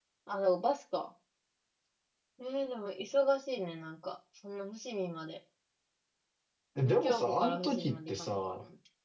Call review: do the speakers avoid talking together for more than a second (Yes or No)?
No